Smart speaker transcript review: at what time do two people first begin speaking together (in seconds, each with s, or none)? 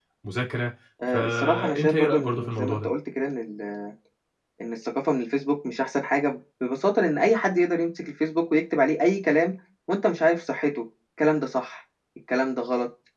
1.1 s